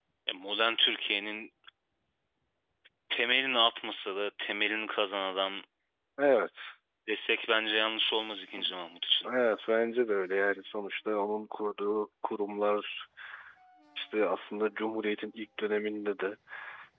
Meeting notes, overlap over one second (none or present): none